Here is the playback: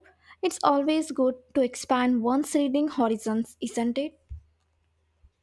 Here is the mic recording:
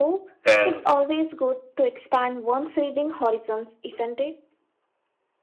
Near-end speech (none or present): present